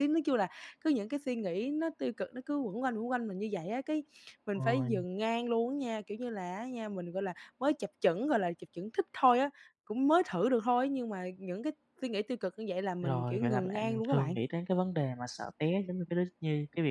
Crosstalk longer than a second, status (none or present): present